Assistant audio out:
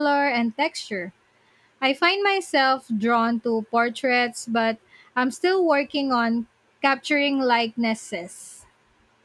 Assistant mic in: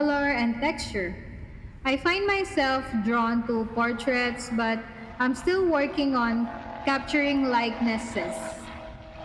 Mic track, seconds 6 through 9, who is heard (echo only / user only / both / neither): echo only